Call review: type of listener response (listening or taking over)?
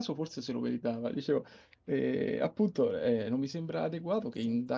listening